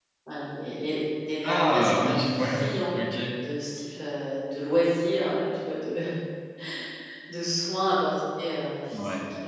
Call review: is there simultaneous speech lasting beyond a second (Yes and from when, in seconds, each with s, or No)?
Yes, from 1.4 s